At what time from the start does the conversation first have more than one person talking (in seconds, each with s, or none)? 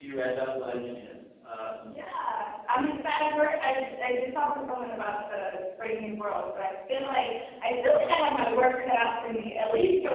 none